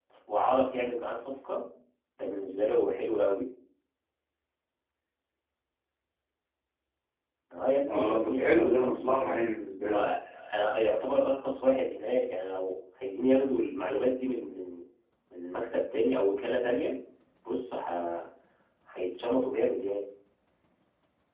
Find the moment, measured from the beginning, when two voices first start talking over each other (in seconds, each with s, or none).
7.9 s